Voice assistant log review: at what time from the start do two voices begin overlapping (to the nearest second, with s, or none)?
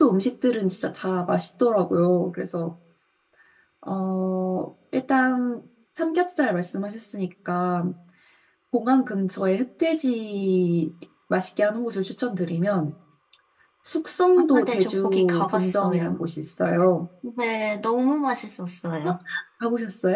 15 s